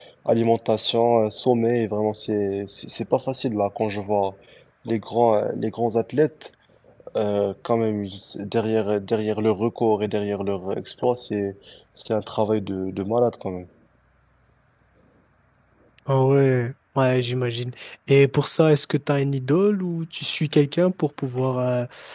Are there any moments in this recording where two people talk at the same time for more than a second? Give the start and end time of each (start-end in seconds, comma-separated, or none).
none